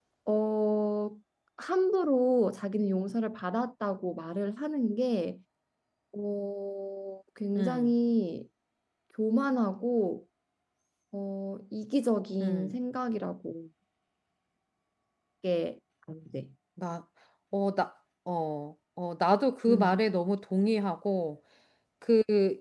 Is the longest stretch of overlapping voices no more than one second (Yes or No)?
Yes